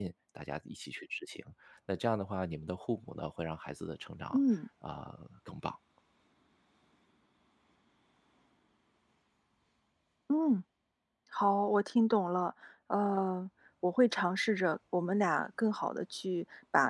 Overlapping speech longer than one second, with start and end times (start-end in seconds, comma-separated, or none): none